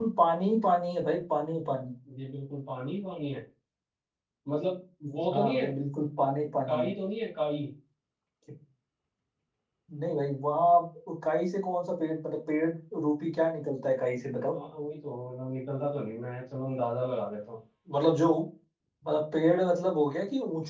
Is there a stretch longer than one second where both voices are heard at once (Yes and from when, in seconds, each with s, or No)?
No